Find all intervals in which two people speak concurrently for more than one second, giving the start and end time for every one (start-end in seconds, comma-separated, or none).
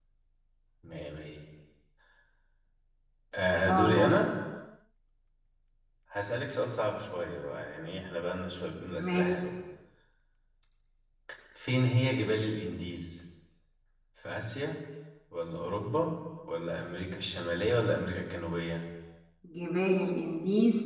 none